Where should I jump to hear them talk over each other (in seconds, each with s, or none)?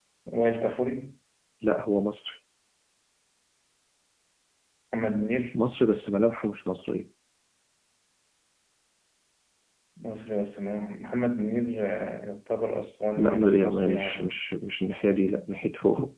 13.2 s